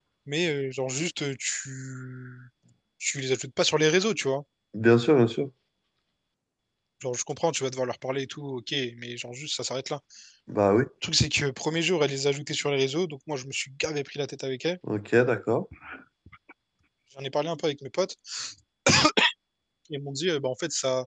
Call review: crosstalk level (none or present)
none